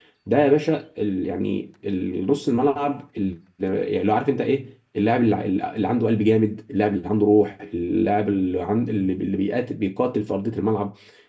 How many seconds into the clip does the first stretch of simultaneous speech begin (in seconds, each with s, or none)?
none